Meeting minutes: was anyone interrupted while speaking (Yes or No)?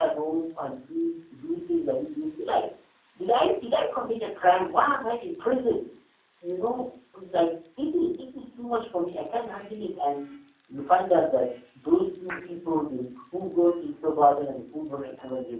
No